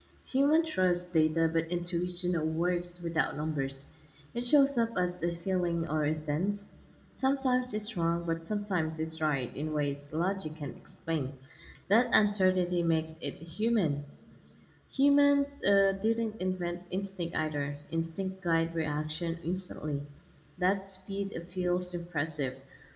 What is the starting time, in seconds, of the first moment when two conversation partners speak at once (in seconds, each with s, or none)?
none